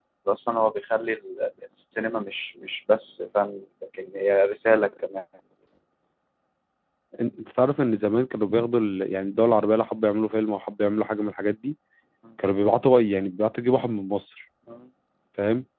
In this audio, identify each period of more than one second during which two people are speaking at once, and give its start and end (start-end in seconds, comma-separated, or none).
none